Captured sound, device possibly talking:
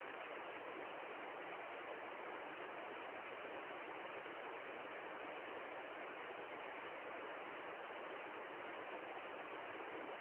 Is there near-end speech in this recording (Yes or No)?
No